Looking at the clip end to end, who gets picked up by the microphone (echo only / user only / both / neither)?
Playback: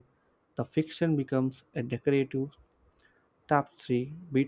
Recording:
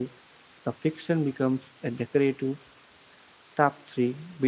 echo only